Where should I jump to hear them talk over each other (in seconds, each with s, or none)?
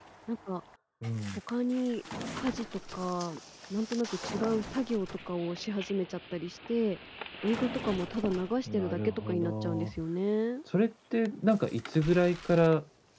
8.7 s